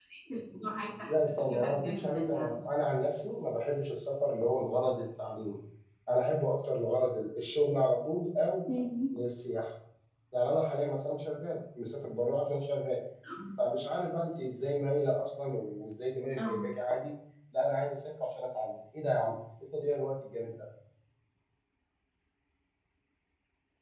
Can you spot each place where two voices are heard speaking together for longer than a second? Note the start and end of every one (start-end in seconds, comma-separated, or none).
1.1-2.5